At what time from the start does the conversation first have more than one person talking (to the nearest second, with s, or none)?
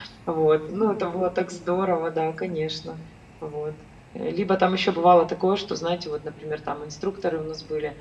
none